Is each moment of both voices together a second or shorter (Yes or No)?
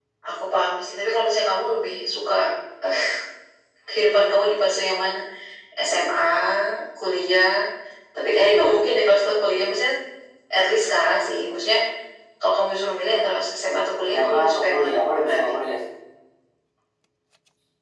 No